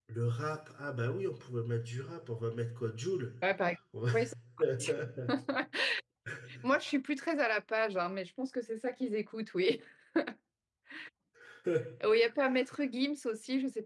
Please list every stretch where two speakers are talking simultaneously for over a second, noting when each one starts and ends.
none

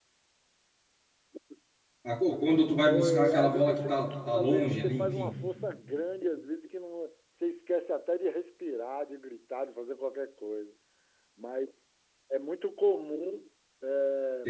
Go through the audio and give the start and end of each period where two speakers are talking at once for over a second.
3.0-5.4

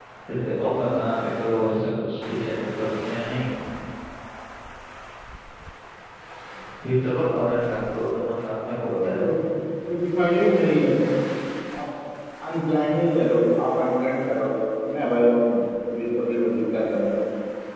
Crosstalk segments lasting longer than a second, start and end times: none

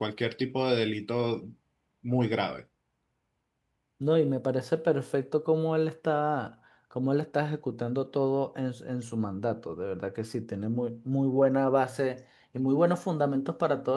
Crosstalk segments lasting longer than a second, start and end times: none

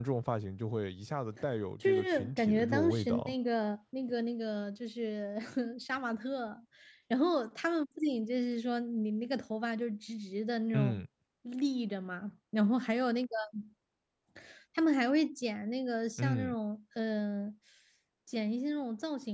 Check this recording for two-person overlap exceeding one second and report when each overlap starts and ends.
1.8-3.3

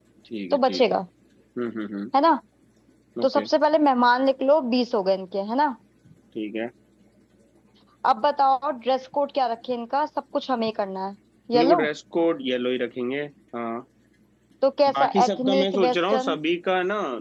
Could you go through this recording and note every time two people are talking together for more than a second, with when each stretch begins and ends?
15.0-16.4

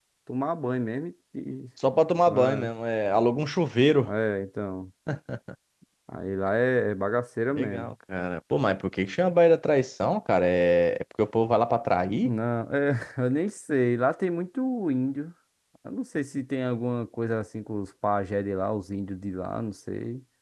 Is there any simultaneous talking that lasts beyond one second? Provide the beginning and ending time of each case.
none

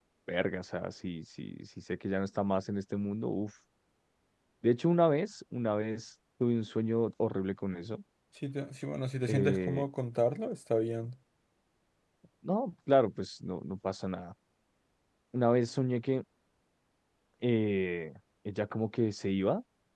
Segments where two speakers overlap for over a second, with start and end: none

